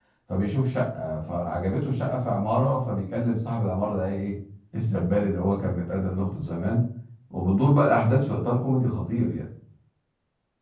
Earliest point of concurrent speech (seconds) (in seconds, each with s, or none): none